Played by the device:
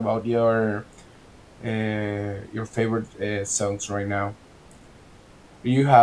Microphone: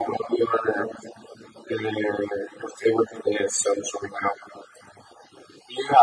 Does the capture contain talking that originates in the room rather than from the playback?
No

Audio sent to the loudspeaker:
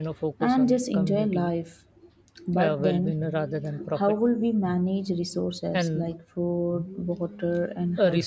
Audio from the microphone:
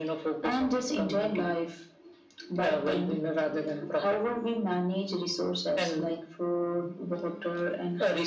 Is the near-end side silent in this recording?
Yes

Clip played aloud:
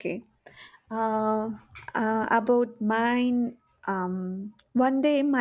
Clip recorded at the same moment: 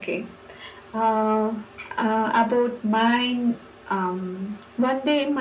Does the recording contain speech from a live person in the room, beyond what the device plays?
No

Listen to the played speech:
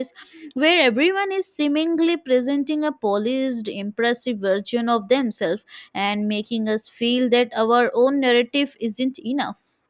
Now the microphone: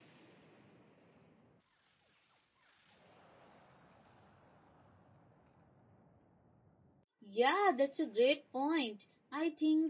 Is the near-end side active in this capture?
Yes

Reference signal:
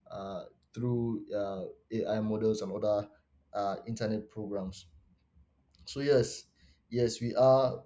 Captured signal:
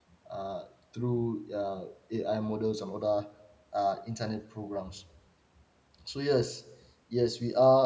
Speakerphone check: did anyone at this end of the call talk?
No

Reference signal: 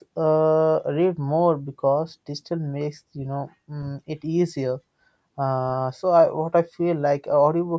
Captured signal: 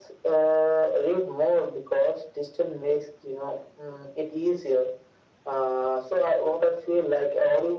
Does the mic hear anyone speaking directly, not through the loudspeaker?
No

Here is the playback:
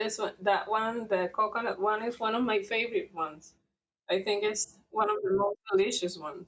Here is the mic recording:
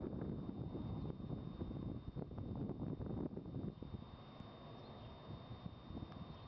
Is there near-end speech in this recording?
No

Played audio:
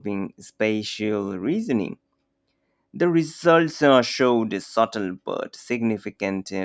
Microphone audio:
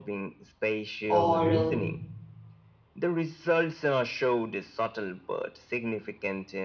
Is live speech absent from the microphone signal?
No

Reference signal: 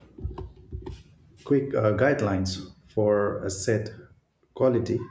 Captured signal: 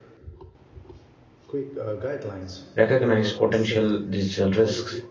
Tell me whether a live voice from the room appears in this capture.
Yes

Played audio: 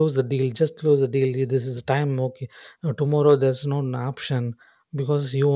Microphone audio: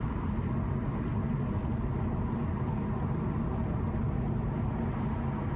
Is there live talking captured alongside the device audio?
No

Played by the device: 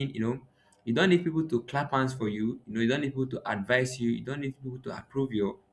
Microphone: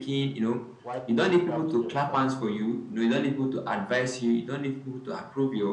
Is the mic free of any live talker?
No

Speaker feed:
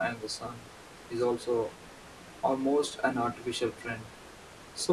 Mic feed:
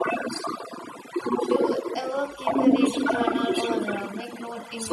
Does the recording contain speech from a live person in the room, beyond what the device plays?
Yes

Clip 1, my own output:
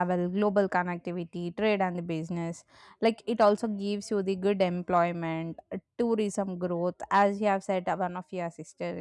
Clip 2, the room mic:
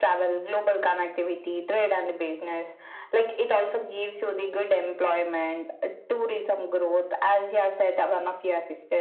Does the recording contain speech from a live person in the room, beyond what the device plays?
No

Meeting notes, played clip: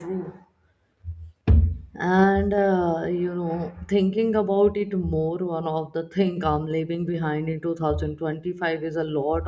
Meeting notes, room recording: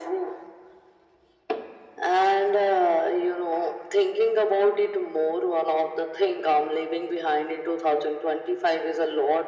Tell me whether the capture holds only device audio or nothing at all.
Yes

